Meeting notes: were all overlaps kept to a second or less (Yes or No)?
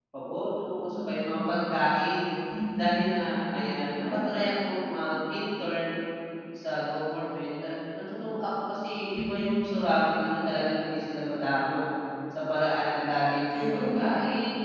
Yes